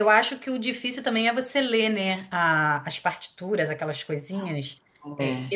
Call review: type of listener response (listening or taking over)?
listening